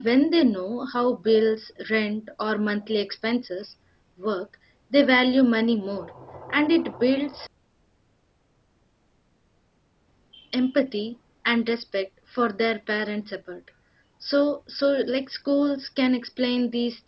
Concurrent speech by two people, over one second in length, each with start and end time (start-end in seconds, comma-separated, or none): none